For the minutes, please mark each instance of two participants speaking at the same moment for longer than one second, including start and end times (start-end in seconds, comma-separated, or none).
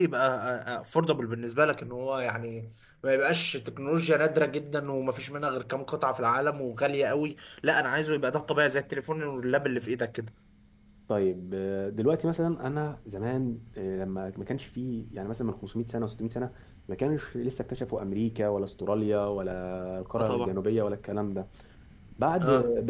none